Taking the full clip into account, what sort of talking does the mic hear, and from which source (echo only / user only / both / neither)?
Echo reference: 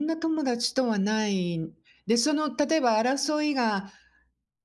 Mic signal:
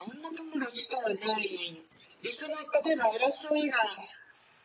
echo only